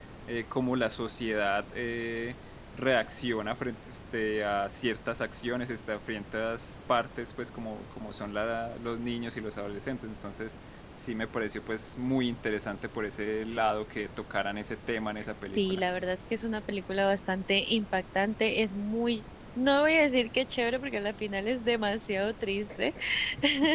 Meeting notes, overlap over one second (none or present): none